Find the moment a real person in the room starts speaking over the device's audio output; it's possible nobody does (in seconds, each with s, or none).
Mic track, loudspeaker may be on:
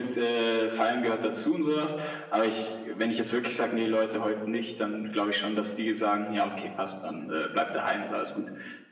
none